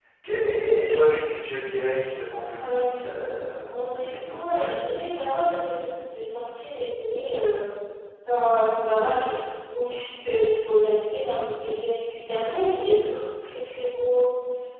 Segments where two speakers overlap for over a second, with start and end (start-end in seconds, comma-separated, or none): 2.6-5.2